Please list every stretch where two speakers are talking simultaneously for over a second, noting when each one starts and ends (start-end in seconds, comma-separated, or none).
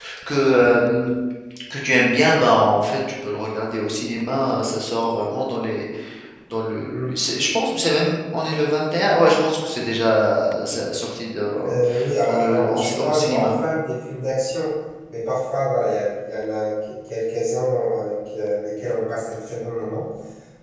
12.3-13.5